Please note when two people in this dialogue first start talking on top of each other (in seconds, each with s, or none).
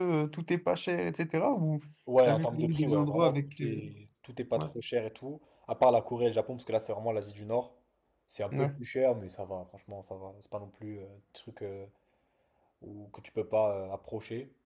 2.2 s